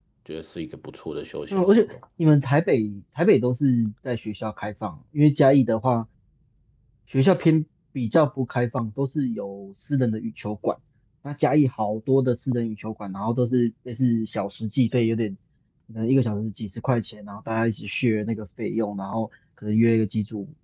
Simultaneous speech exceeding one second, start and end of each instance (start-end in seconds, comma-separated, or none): none